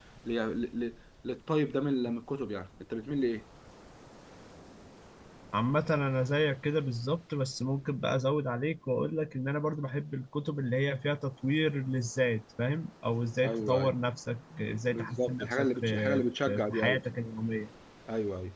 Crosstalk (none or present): present